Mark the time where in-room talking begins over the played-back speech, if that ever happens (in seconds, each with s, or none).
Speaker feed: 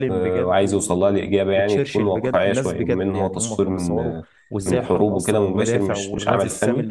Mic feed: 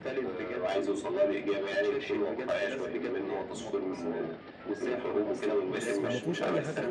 5.7 s